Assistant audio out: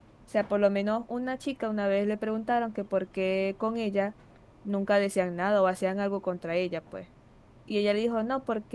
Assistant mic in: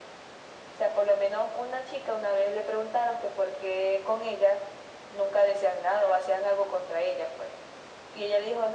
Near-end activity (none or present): none